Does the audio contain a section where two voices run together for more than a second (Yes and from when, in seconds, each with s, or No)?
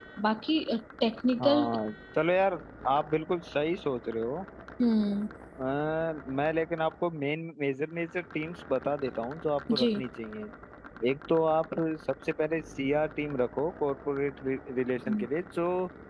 No